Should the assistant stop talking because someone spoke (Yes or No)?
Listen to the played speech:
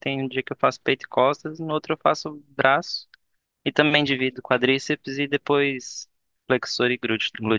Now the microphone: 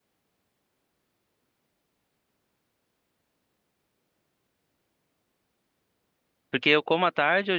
Yes